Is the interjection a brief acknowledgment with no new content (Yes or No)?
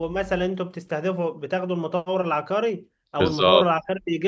Yes